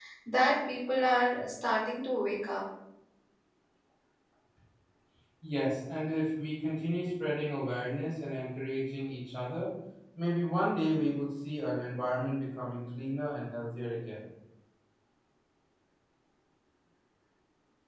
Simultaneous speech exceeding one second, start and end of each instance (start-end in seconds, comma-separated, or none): none